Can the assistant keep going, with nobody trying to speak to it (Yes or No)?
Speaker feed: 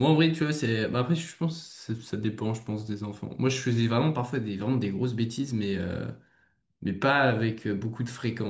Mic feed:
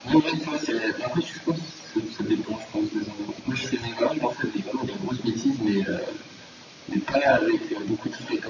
Yes